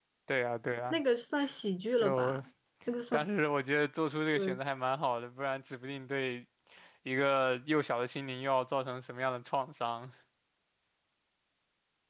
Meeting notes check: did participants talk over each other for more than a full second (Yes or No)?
No